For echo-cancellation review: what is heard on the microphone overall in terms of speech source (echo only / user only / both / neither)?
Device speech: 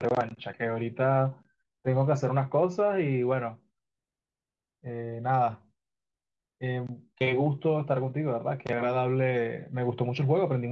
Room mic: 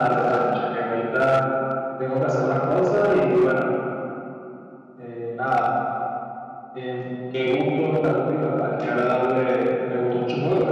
echo only